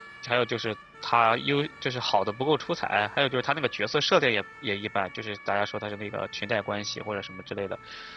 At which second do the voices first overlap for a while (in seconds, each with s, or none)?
none